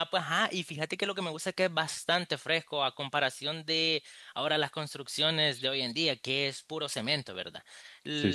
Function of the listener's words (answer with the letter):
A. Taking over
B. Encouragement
B